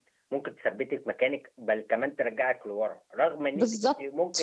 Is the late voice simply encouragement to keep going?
Yes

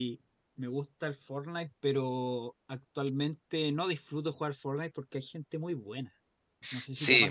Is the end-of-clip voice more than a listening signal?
Yes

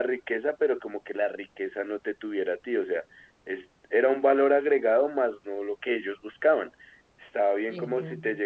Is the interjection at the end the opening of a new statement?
No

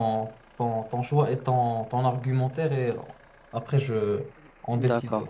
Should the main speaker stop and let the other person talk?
Yes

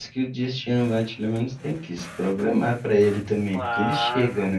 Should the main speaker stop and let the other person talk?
Yes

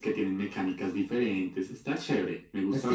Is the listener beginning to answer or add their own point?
Yes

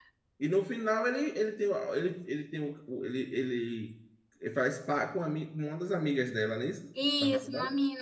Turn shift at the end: Yes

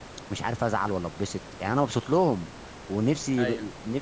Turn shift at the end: No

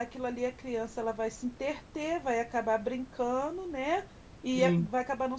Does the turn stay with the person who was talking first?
Yes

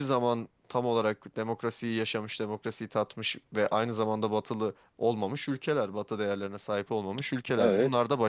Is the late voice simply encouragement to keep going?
Yes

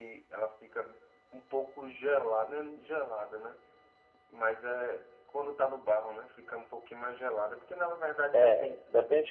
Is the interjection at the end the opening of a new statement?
Yes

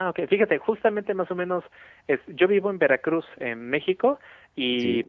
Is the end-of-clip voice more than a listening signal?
No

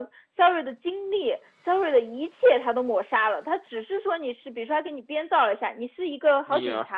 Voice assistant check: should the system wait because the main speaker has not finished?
Yes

